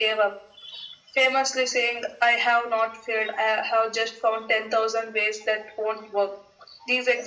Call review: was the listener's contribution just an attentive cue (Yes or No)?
Yes